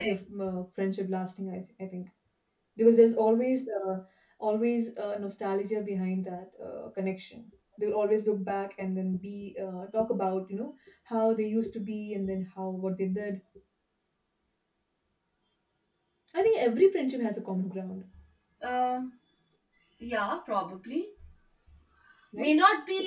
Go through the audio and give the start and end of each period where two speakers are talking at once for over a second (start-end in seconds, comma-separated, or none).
none